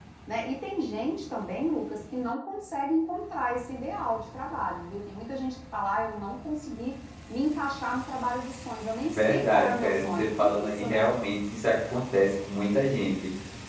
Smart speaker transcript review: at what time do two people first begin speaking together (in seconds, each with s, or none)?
9.0 s